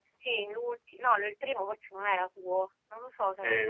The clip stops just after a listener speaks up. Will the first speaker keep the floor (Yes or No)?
No